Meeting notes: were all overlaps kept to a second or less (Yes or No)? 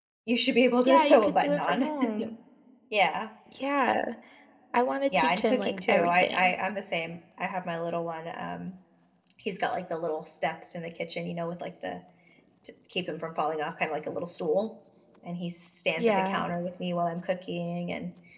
No